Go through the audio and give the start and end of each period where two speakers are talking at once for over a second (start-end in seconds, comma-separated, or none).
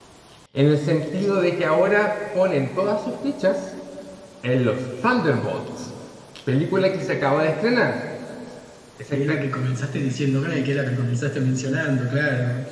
none